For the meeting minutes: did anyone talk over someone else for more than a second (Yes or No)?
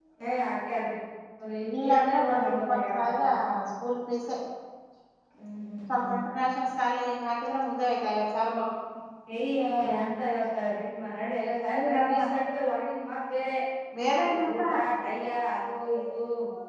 Yes